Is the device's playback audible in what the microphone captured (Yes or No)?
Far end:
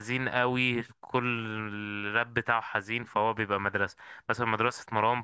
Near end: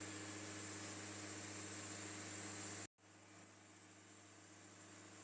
No